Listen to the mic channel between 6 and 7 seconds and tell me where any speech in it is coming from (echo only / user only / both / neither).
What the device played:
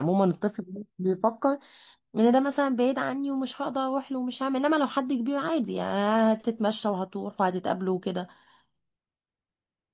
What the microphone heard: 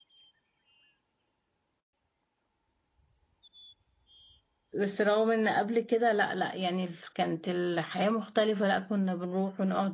user only